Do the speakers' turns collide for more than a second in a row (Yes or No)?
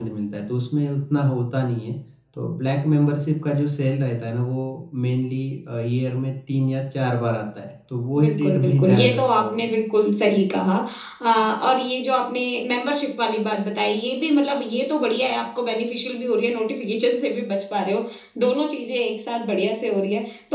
Yes